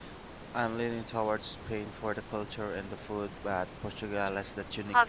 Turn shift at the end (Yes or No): Yes